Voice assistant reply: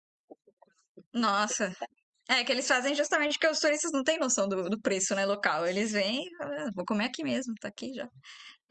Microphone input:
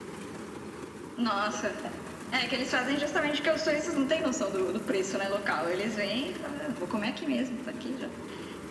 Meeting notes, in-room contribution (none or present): none